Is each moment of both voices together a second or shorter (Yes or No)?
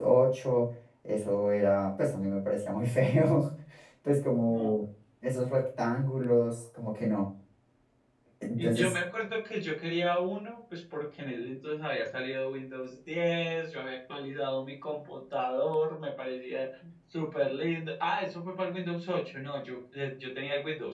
Yes